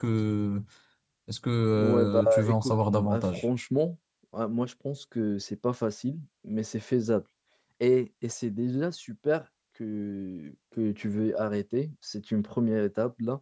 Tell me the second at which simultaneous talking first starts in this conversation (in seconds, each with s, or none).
1.7 s